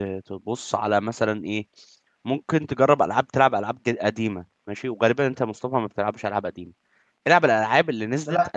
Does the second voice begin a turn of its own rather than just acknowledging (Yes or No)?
No